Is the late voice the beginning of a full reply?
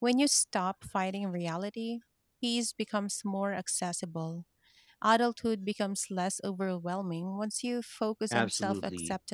Yes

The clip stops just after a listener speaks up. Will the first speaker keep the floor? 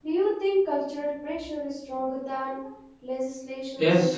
No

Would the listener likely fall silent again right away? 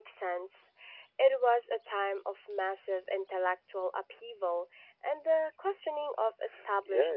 No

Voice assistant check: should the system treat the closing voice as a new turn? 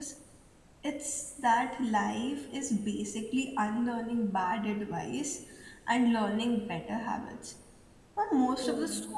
No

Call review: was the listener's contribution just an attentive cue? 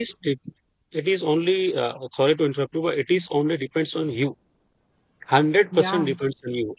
Yes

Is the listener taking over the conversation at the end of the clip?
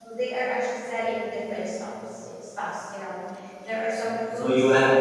Yes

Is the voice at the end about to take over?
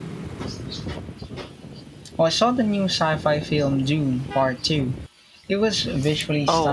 Yes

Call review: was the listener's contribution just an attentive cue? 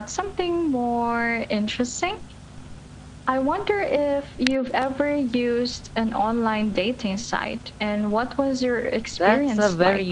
No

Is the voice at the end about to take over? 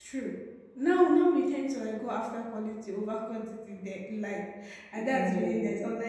No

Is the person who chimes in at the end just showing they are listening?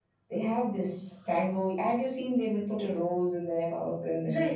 No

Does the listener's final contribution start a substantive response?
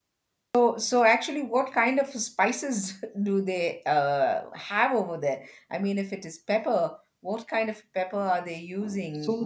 Yes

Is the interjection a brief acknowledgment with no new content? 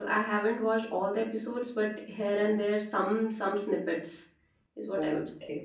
No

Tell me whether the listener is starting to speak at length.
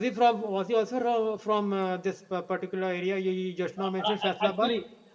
Yes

